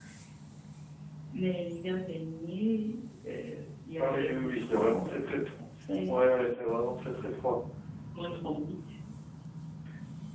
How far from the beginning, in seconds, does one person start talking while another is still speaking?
4.0 s

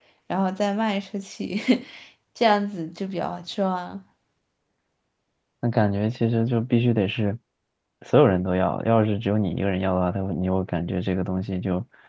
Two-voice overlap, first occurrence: none

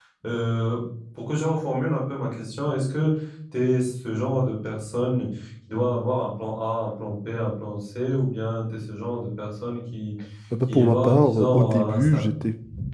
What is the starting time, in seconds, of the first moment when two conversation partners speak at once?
10.7 s

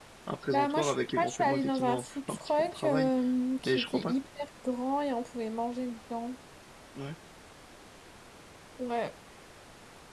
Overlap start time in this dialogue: 0.5 s

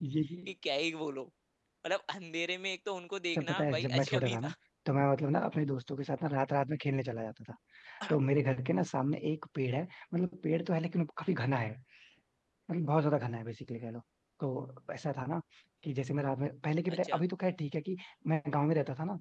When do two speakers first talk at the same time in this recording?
3.3 s

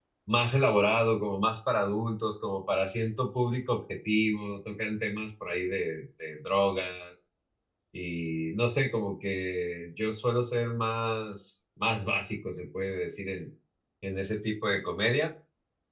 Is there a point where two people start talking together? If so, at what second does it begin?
none

